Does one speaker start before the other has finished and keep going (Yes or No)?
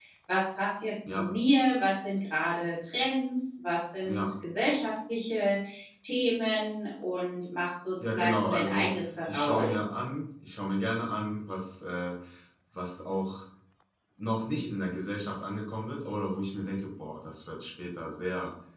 Yes